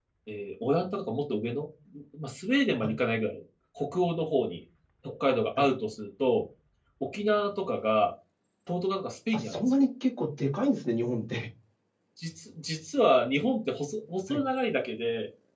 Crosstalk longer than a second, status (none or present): none